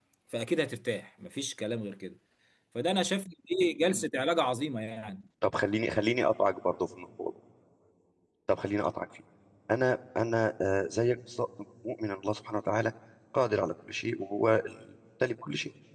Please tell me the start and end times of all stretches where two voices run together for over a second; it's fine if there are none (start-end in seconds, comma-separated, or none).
none